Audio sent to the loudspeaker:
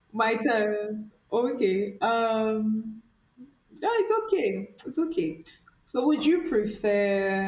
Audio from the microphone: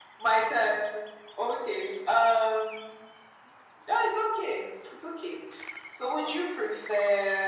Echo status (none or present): present